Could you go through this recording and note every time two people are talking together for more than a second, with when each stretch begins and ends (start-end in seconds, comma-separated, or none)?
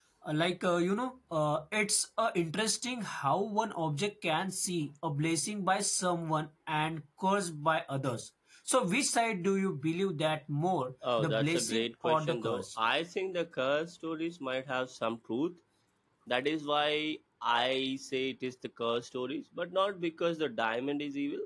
11.2-12.7